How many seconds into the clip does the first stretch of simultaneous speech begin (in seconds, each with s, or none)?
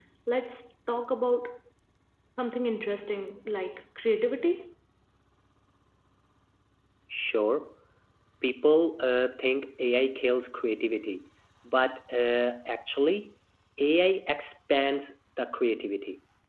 none